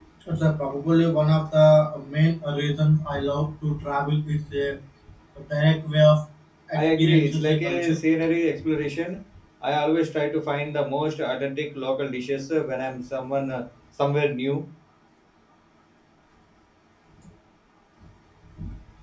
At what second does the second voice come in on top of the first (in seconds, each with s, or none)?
6.8 s